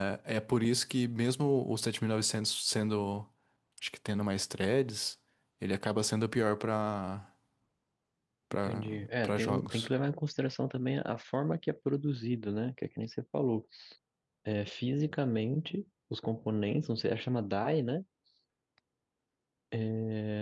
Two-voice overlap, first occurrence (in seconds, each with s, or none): 8.6 s